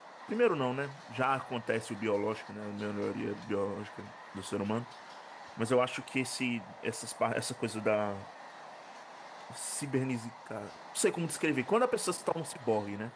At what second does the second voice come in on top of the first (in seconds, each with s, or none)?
none